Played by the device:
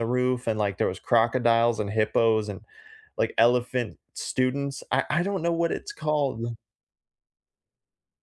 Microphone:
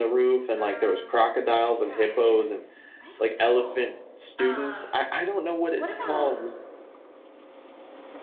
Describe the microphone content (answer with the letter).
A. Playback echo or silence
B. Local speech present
B